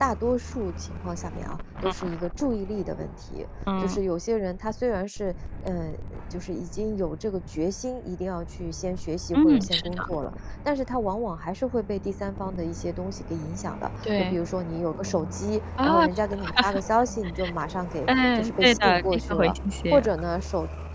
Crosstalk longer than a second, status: present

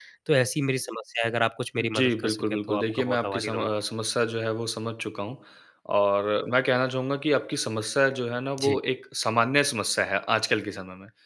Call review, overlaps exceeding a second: present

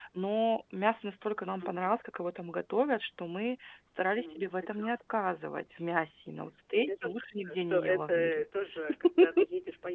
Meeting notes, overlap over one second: present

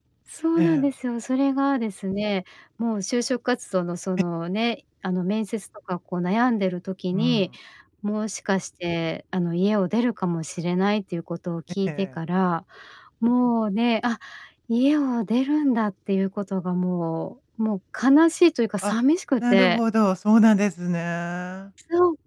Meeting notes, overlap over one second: none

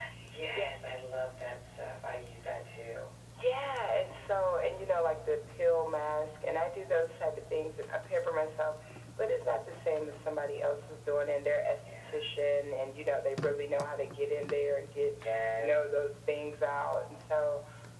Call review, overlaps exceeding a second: none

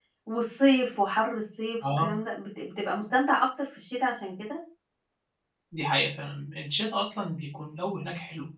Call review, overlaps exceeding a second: none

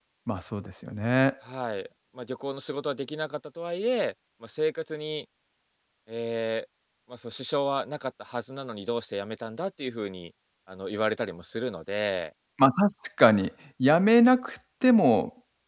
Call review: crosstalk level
none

